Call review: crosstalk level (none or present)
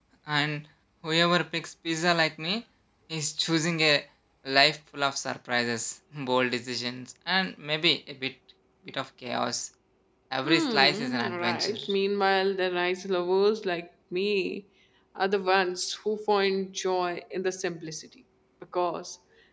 present